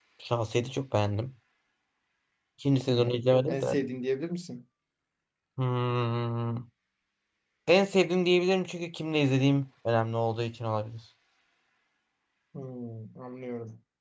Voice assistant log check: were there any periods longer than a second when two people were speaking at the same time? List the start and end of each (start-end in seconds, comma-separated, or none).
none